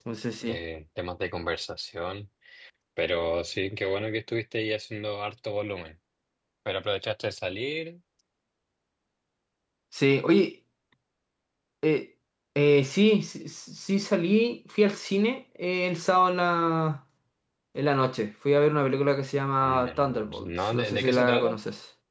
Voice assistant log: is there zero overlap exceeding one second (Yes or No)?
No